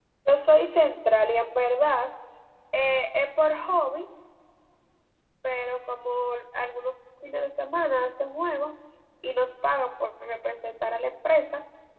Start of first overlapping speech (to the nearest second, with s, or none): none